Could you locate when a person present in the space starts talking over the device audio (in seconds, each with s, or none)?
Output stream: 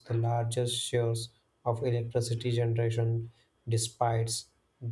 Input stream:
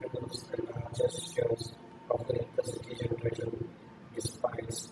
none